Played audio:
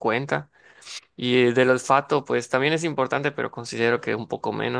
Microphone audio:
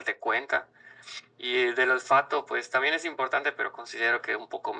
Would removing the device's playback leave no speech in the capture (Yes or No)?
Yes